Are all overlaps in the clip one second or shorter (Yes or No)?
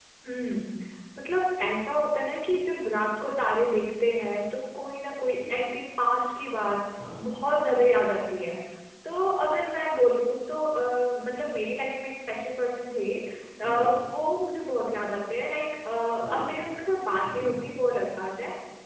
Yes